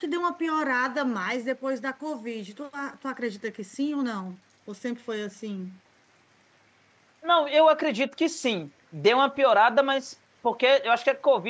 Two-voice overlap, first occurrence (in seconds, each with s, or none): none